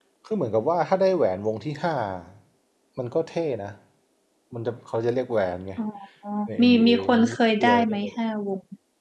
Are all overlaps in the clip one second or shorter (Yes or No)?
No